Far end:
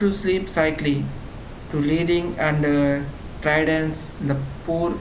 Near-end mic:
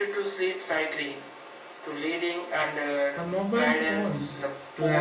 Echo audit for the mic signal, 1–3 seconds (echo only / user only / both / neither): echo only